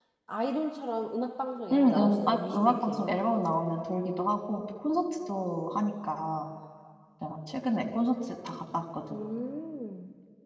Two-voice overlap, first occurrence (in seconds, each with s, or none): 1.7 s